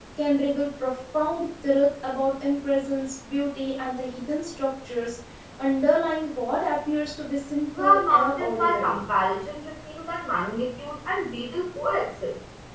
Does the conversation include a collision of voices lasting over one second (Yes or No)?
Yes